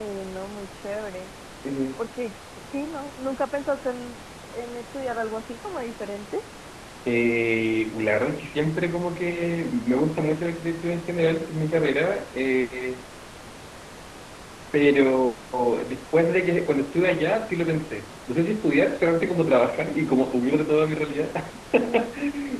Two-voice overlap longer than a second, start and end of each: none

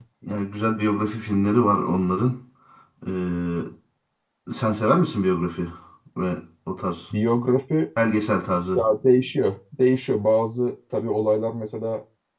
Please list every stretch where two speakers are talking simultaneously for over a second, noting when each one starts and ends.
none

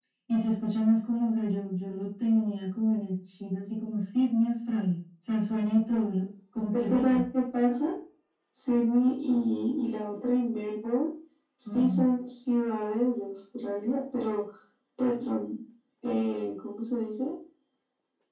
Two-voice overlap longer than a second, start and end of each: none

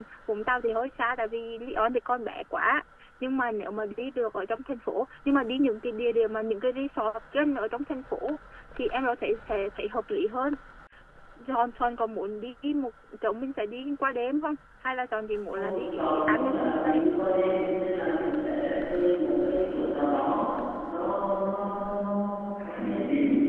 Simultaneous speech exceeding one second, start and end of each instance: 15.5-17.0

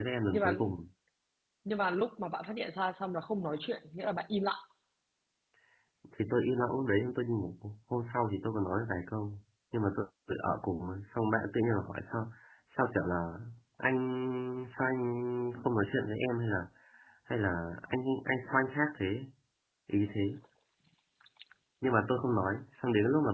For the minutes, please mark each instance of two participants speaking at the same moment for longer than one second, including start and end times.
none

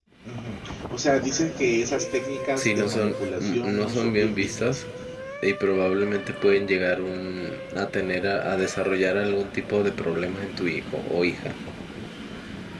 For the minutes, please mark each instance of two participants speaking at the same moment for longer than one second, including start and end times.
2.6-4.8

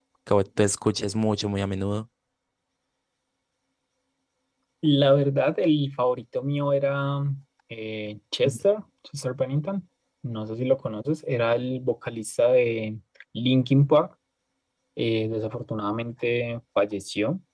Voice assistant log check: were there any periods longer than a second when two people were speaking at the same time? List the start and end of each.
none

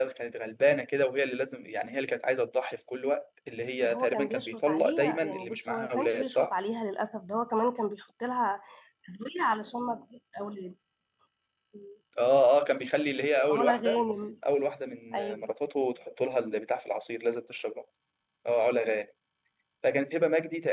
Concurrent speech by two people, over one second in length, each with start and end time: 3.8-6.5

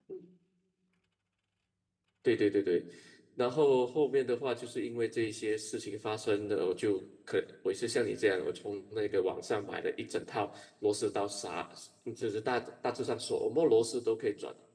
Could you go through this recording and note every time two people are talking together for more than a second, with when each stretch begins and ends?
none

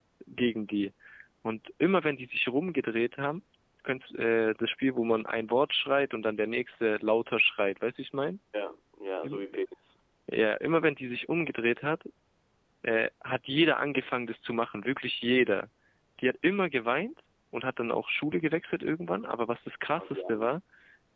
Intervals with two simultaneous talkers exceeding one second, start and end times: none

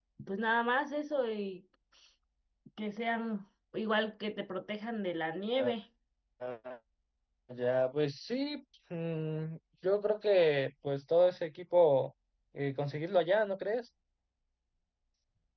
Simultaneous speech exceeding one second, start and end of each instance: none

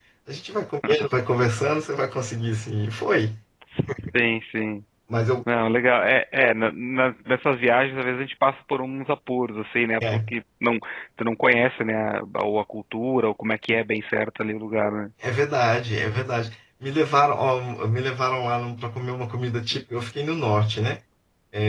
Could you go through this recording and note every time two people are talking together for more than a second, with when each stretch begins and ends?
none

